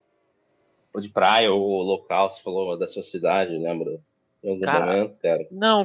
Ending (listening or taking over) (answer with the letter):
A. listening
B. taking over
B